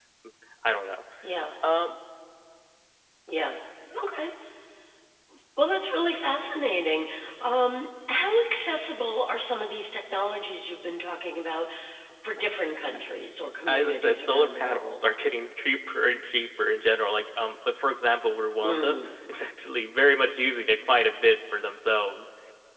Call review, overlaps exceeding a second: present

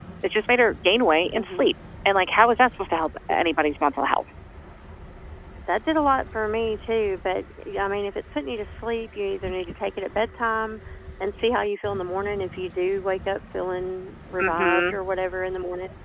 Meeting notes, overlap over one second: none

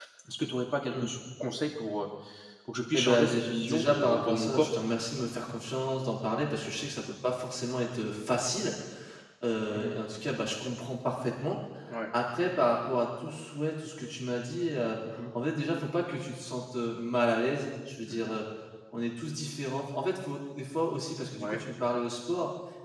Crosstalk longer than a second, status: present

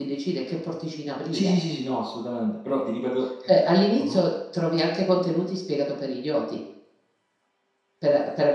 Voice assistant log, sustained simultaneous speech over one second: none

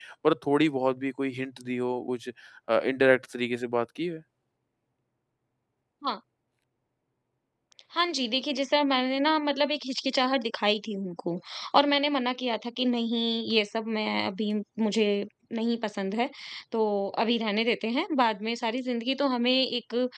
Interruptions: none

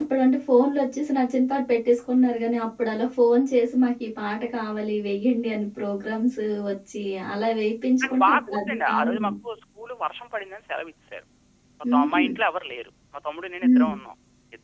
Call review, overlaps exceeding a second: present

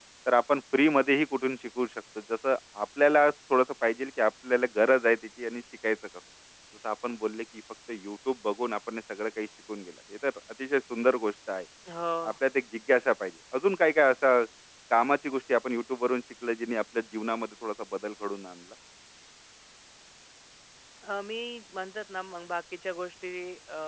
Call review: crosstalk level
none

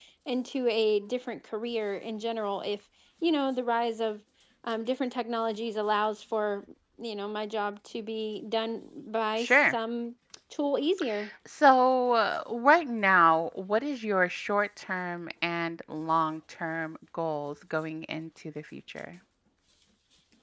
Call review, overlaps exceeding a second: none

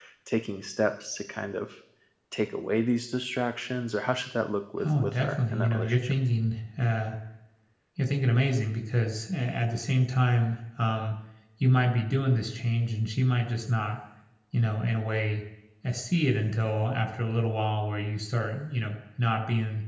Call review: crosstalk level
present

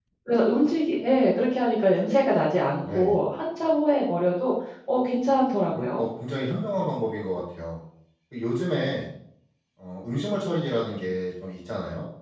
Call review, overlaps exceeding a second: none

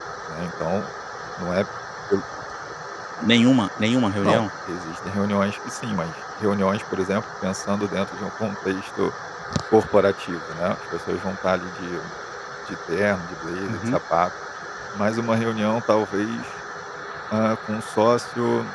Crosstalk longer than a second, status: none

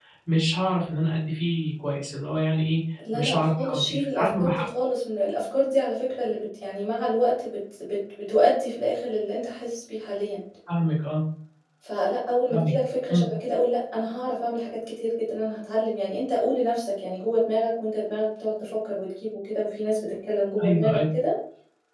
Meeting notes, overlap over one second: present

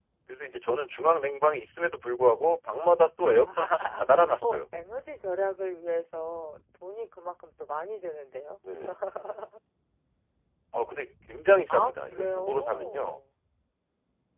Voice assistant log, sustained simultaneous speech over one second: present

